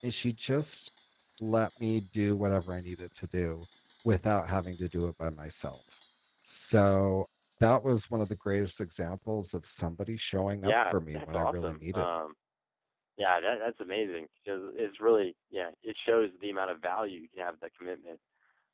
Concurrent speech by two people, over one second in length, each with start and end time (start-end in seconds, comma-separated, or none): 10.6-12.1